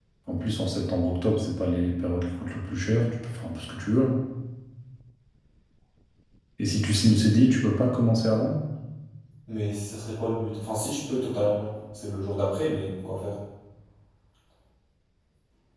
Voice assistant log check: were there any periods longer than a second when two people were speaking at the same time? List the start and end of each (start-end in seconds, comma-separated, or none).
none